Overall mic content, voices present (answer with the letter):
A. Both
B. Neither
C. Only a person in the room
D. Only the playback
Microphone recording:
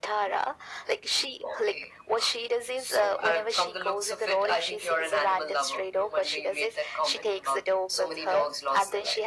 D